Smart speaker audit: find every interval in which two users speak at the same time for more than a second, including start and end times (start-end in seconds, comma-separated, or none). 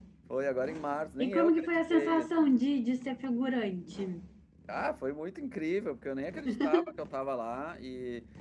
1.2-2.5